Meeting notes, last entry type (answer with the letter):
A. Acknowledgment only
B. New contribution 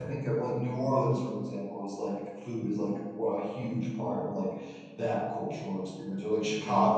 B